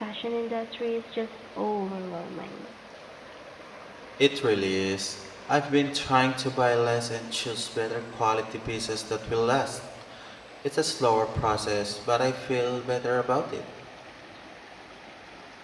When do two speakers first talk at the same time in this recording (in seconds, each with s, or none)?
none